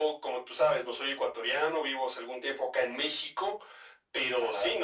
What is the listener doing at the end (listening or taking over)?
listening